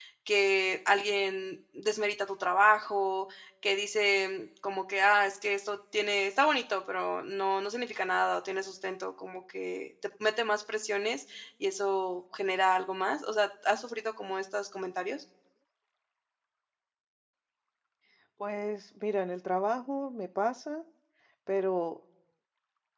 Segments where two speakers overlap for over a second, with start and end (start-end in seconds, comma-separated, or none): none